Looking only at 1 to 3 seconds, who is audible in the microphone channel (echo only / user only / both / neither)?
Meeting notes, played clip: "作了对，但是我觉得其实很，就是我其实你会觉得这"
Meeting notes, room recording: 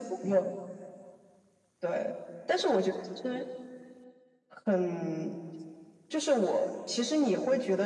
echo only